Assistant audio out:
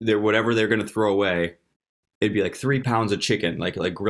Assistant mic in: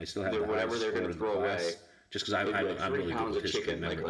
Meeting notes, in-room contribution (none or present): present